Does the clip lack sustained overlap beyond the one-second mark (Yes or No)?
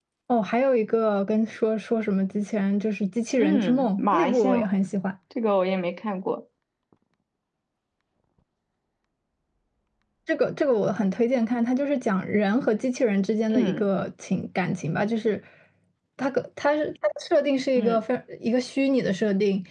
No